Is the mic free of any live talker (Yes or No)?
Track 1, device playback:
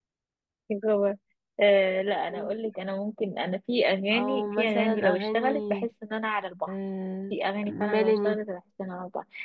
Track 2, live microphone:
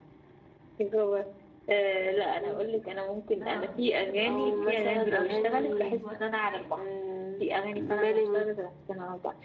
No